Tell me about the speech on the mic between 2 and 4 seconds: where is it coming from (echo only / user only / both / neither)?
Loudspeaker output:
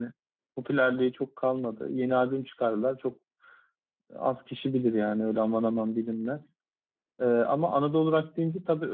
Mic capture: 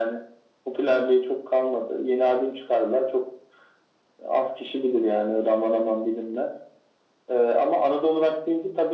echo only